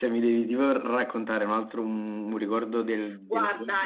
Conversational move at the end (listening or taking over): taking over